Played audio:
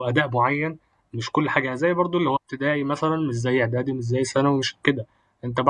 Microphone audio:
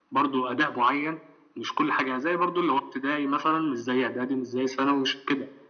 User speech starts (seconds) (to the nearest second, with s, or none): none